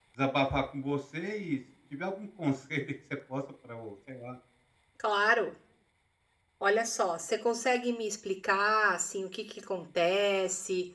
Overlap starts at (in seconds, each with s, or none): none